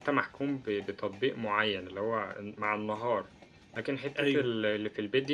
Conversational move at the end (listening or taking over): listening